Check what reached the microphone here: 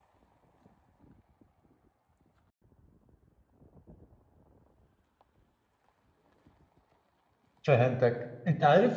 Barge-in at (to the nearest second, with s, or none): 8 s